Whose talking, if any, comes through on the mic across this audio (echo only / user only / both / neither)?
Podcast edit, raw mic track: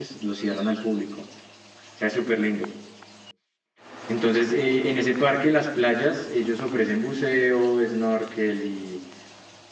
user only